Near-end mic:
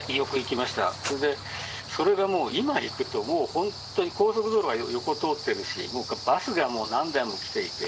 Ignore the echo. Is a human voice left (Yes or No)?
No